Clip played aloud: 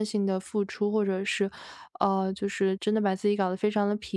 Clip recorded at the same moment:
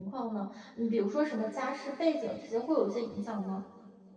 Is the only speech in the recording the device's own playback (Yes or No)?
No